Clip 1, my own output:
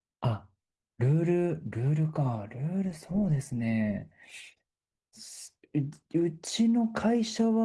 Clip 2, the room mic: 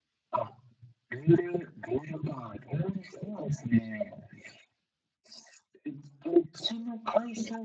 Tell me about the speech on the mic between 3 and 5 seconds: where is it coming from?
echo only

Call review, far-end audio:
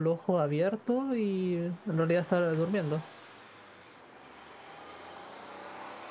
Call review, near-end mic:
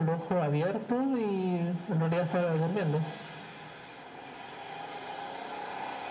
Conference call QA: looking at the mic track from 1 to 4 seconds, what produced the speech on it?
echo only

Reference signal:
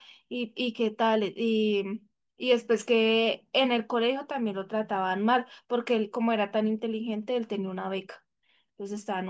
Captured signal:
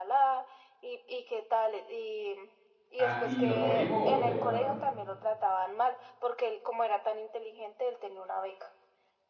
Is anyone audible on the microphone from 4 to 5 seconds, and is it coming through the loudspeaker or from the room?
both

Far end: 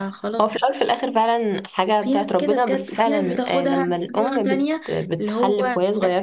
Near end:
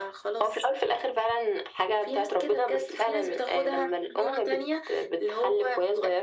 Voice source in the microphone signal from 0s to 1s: echo only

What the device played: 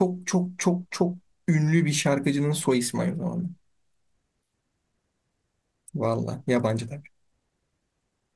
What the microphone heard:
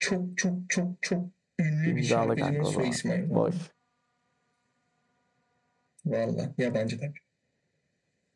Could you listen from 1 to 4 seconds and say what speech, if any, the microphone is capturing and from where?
both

